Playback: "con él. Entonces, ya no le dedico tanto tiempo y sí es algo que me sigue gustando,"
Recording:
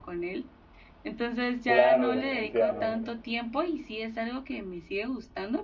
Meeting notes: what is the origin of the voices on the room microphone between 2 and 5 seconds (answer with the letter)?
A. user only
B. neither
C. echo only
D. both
D